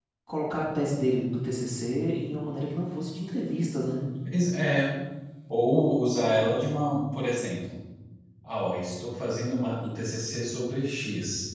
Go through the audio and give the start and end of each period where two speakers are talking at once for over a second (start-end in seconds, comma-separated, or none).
none